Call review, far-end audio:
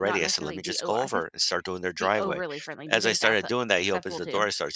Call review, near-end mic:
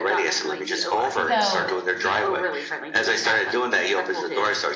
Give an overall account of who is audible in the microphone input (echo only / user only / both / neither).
both